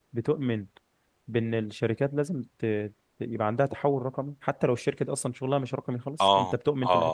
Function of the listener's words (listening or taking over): taking over